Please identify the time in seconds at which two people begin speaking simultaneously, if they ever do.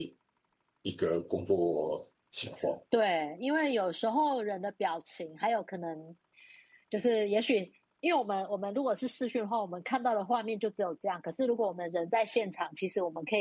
none

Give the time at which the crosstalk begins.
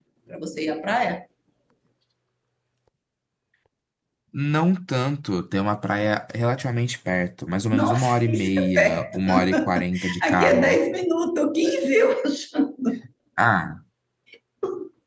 7.7 s

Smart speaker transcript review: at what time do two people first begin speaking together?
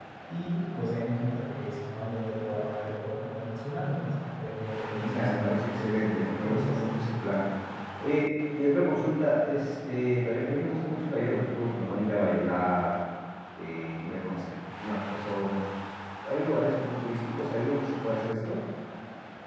4.9 s

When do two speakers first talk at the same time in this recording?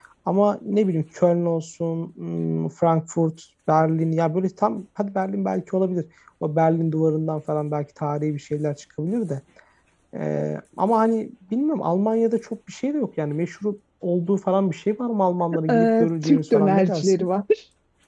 15.7 s

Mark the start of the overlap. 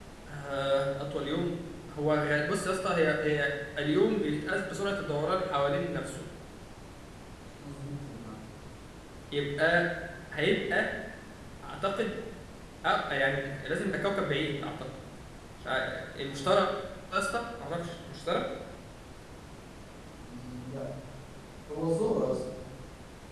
none

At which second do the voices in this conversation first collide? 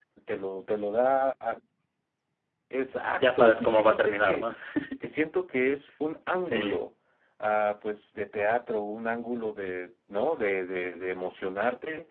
3.2 s

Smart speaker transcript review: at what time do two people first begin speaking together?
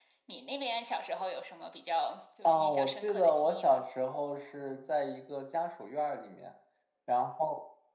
2.4 s

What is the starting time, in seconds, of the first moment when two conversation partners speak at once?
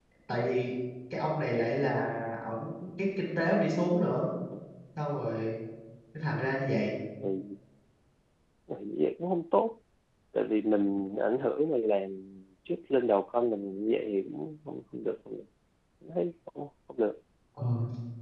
none

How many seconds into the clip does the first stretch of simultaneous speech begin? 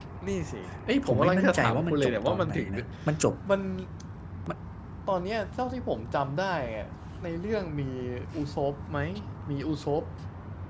1.1 s

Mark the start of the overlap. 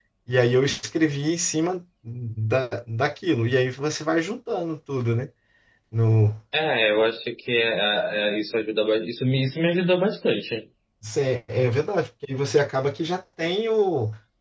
none

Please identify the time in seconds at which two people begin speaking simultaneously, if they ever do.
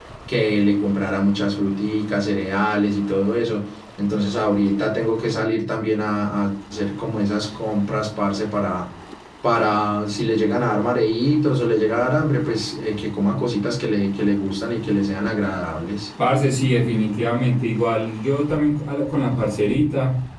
none

